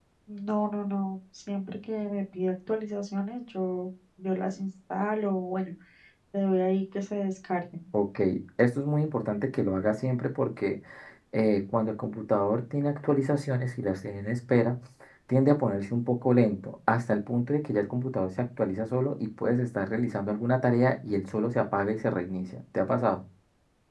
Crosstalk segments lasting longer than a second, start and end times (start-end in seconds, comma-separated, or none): none